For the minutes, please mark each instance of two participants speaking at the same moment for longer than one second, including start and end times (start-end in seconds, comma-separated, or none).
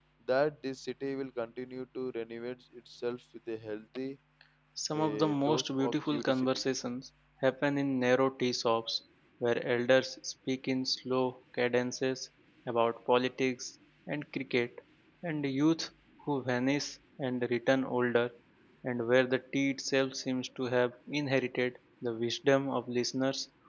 4.9-6.6